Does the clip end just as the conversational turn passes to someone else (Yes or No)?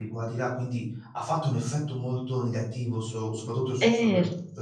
Yes